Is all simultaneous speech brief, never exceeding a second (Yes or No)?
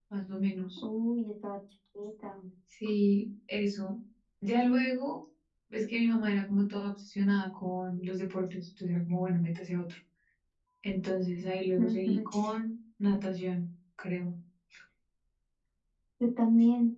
Yes